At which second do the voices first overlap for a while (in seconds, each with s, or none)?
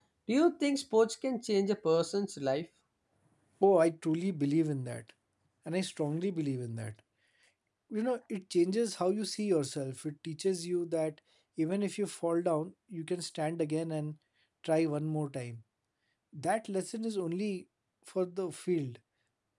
none